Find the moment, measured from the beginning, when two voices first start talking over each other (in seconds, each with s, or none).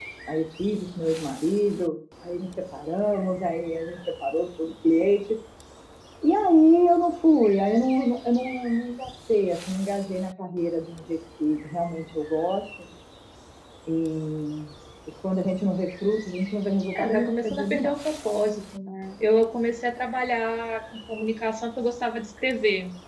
16.9 s